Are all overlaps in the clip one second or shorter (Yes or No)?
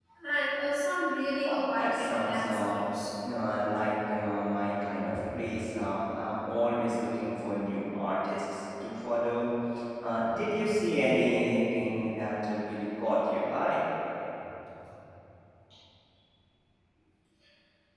No